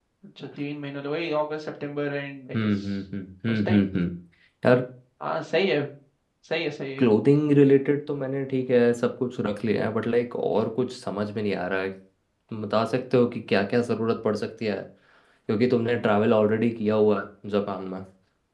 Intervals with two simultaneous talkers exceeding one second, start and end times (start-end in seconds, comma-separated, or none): none